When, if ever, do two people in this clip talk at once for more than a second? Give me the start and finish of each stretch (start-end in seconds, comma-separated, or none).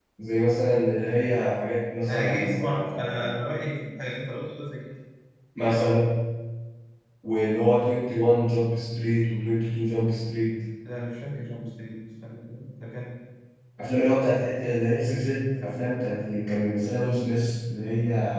2.1-3.5